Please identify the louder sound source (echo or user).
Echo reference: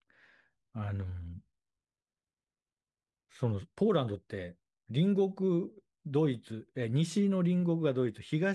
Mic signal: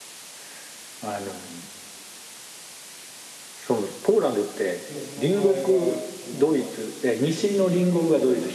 echo